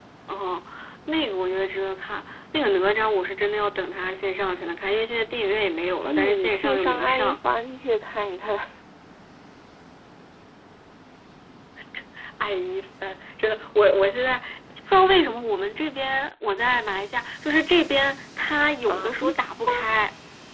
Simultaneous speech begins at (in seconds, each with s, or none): 6.0 s